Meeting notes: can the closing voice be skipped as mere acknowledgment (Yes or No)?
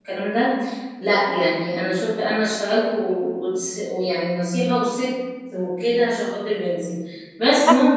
Yes